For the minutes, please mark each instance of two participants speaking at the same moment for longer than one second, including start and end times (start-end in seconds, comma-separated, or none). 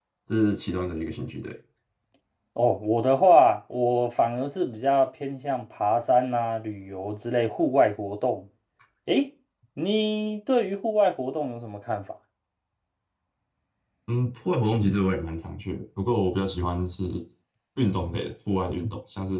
none